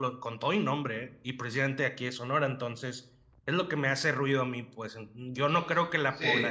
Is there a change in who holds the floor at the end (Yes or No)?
No